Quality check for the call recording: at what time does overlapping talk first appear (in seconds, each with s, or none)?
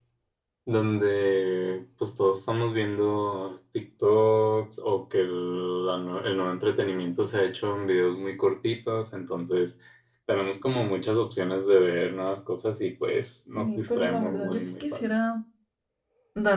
13.5 s